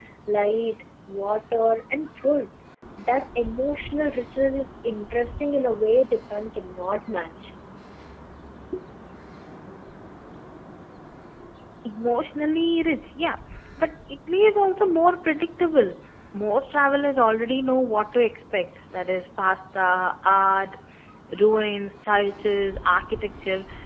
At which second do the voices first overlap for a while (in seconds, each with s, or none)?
none